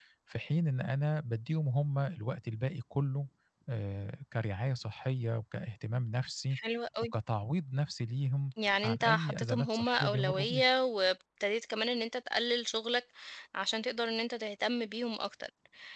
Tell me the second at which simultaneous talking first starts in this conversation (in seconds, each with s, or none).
8.8 s